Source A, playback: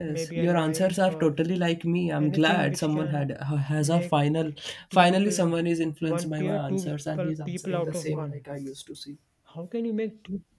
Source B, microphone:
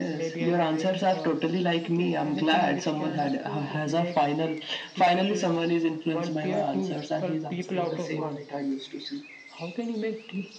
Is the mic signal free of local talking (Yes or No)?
No